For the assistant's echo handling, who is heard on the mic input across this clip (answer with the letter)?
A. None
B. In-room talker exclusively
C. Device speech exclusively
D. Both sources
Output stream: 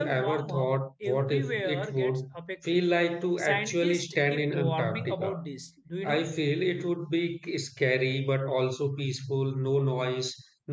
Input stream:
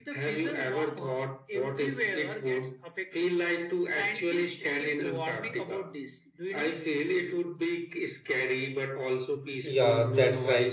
D